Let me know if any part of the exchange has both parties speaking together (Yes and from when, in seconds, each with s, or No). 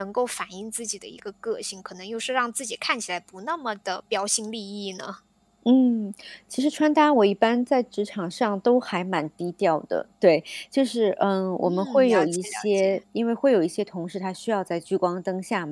Yes, from 11.7 s